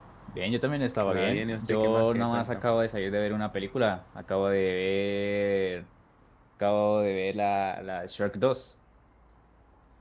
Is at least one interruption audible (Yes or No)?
Yes